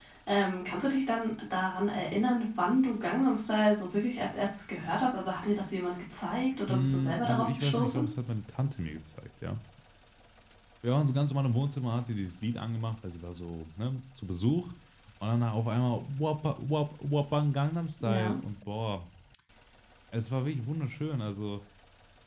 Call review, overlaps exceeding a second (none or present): present